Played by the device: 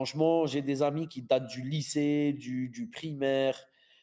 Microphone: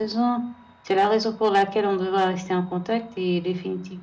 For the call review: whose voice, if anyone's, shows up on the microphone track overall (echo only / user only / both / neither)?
user only